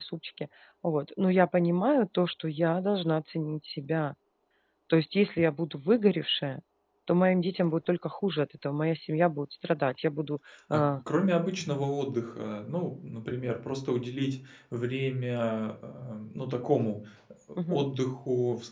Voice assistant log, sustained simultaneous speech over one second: none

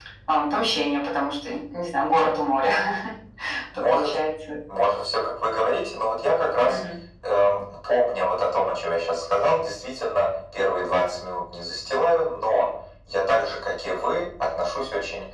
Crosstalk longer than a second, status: none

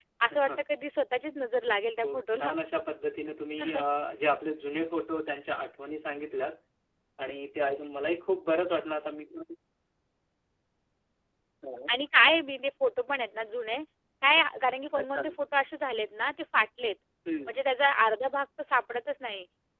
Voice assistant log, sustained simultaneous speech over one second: none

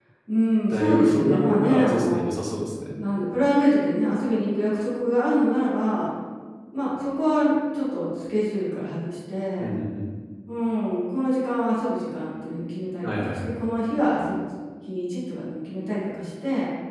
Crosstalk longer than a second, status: present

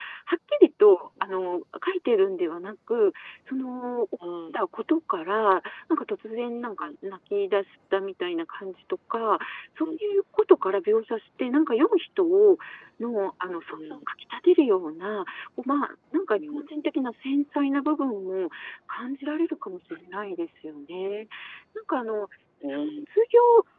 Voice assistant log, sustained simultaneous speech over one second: none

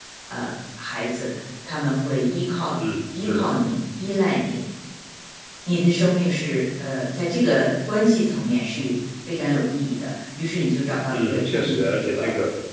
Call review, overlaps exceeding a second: present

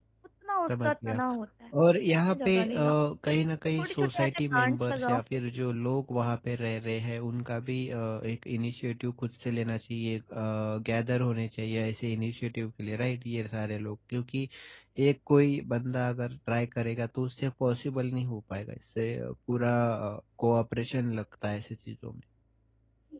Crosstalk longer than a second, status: present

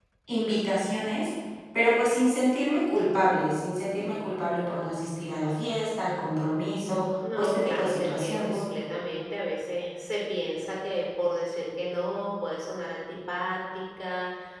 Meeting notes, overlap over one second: present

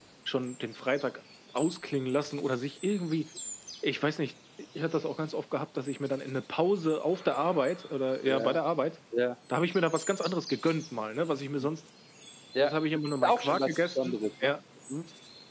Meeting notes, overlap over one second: present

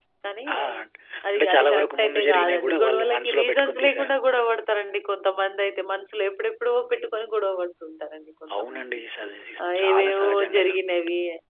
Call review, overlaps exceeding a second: present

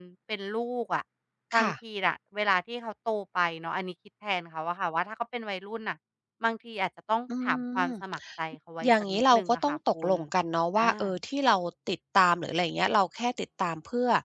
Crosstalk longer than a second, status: present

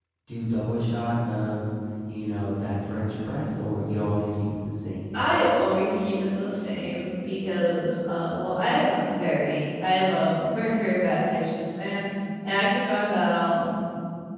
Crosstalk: none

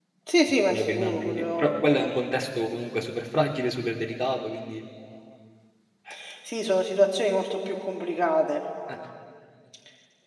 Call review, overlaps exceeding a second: present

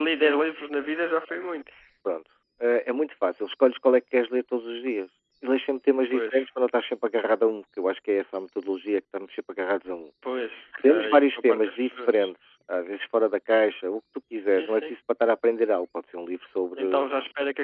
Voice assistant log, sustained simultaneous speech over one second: present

